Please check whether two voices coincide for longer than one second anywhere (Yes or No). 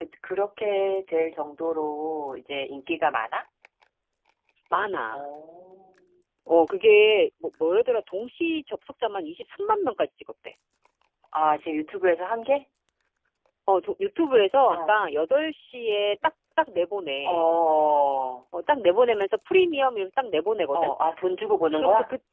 No